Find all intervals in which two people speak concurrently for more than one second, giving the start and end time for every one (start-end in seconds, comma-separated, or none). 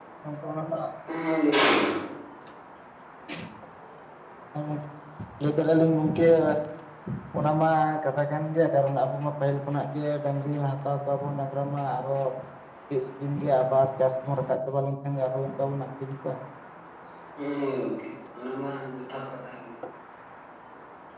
none